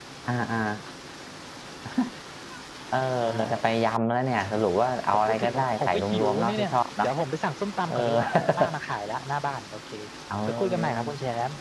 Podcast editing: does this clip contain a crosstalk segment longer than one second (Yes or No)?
Yes